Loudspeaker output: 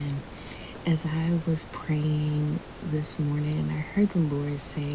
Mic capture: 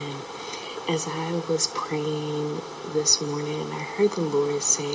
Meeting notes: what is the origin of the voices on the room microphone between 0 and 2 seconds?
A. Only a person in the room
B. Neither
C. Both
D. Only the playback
D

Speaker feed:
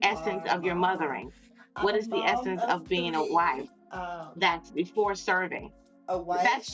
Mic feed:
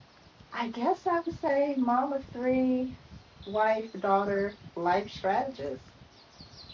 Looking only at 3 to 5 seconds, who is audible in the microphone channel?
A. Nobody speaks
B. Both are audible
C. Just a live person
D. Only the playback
C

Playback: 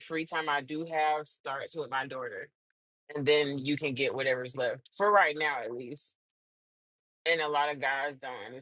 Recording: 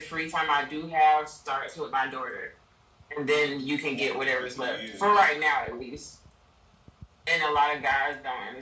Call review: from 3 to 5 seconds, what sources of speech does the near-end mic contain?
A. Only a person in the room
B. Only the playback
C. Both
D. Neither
C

